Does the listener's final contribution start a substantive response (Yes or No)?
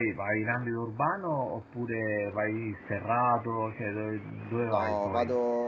Yes